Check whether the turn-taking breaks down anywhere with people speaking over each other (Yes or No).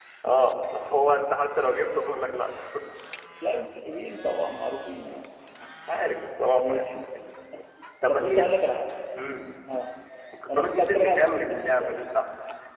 Yes